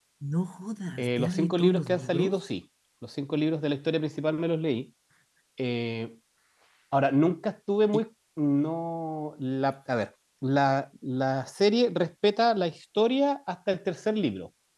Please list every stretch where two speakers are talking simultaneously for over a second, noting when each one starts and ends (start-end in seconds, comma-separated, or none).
1.0-2.4